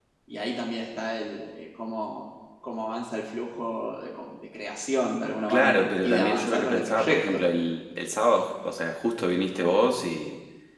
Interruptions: present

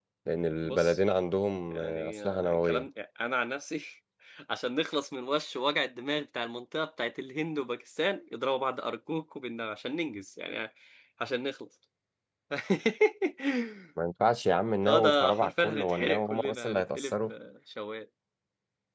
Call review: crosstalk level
present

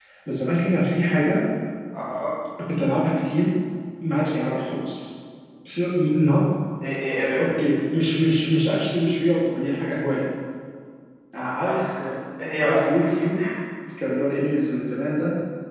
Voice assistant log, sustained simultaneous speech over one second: none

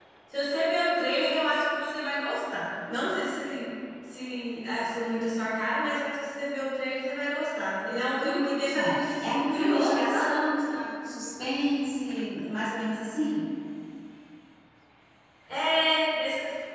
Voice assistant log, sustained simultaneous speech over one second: present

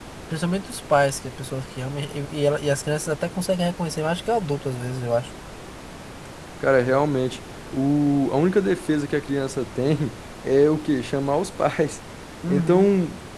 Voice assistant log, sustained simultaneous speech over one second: none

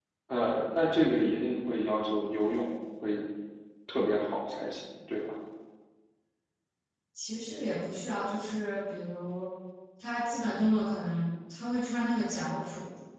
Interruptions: none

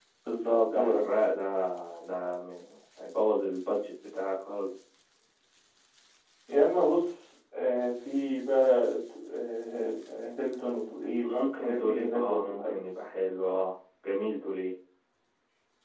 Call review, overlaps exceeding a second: present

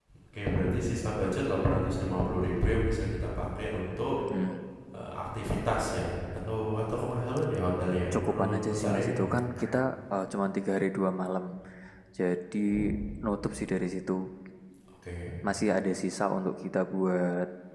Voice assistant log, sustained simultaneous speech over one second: present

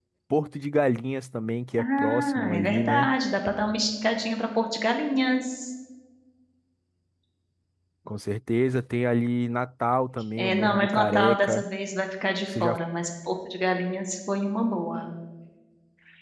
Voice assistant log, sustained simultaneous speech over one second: present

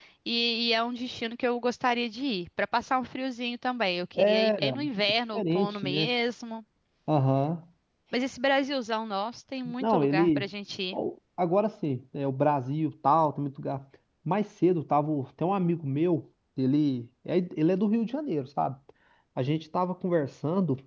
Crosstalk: present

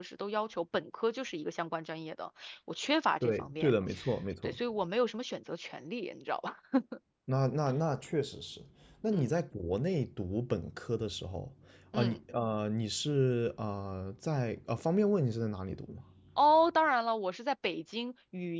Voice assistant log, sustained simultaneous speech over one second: none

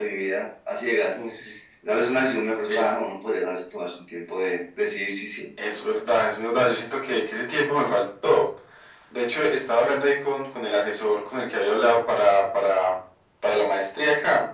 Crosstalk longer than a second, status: none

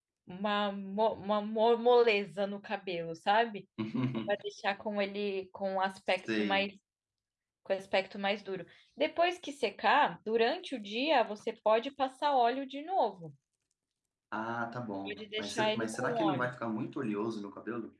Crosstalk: present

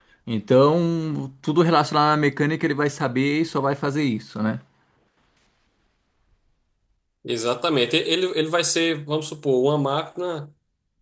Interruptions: none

